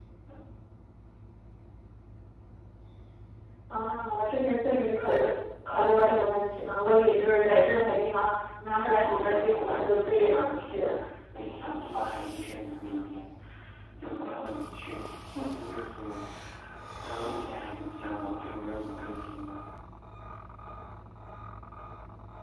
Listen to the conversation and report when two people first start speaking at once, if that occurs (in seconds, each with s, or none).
8.9 s